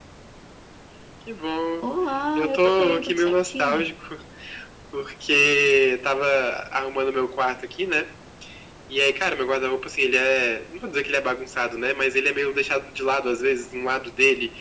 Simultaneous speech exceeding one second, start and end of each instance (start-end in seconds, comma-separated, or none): 2.4-3.9